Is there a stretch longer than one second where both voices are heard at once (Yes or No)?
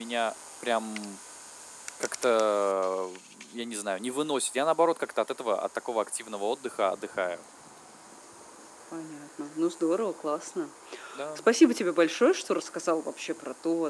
No